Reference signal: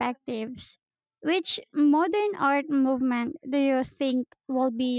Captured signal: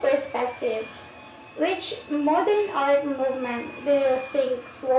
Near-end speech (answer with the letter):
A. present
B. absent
B